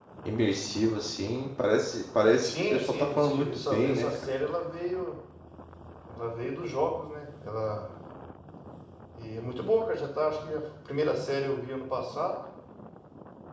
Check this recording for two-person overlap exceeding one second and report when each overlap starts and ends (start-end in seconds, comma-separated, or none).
2.4-4.3